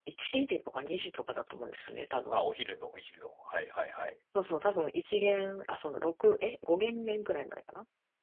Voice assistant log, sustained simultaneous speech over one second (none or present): none